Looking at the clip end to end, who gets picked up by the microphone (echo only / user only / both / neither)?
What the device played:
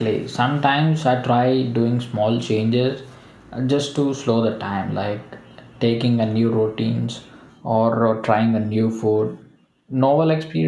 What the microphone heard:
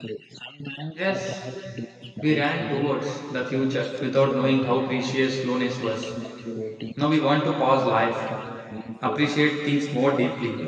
both